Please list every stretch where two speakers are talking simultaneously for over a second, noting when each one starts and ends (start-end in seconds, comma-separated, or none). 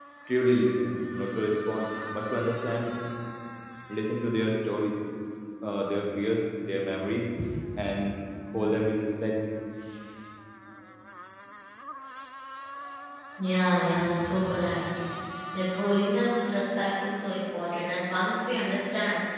none